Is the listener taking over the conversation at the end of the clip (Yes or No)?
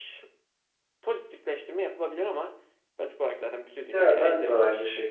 Yes